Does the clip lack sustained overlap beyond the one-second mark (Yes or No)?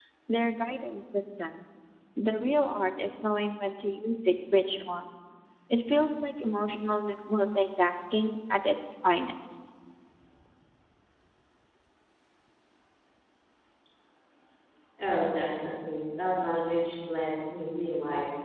Yes